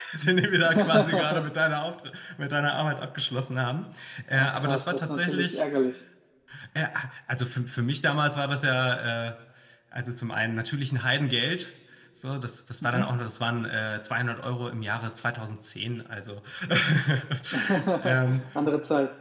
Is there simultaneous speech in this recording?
Yes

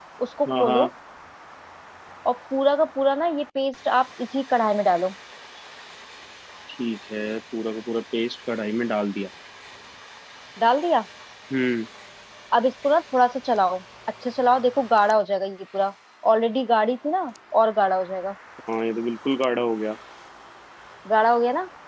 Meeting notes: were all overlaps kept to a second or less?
Yes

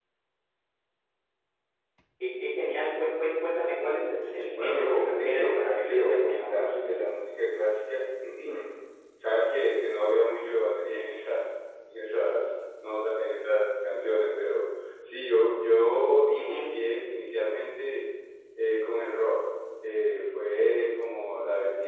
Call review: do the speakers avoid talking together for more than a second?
No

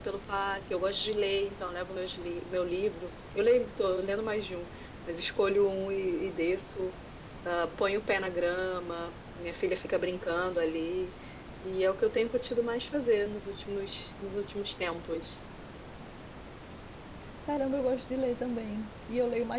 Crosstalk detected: No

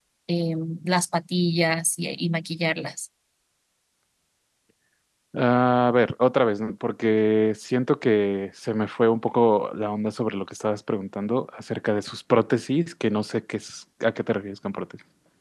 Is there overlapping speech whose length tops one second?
No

